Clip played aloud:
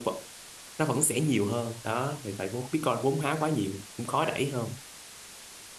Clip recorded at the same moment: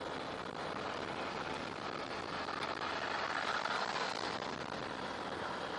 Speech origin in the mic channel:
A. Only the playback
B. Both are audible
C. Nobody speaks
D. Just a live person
C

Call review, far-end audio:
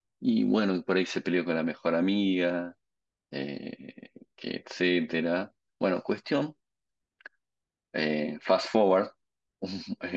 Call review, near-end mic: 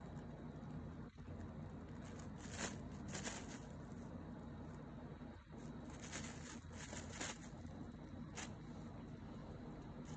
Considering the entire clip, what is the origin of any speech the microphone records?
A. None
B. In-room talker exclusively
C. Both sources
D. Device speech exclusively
A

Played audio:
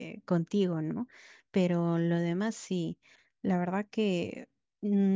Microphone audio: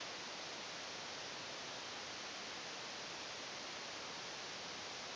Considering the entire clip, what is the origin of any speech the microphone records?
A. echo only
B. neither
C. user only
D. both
B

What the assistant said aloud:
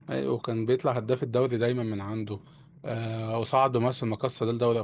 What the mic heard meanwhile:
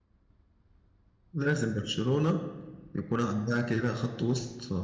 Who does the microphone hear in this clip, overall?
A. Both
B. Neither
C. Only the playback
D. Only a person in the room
D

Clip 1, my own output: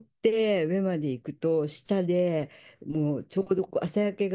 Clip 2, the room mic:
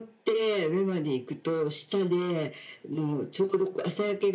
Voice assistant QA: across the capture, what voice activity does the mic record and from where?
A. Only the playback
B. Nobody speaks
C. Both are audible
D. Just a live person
A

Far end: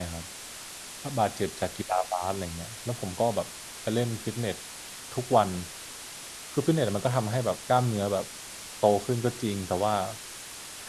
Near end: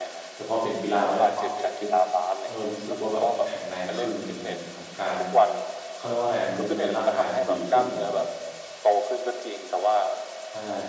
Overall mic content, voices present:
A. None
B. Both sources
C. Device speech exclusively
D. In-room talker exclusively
B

